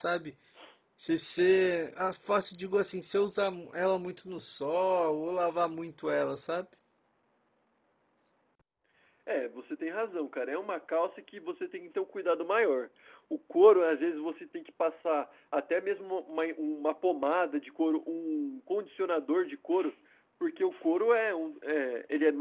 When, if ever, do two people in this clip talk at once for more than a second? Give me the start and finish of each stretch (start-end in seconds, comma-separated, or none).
none